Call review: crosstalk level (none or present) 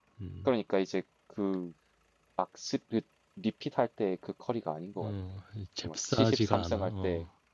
present